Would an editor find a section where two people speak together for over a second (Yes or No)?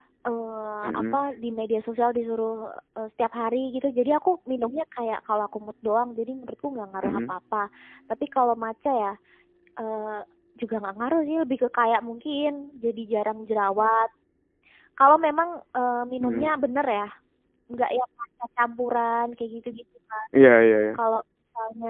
No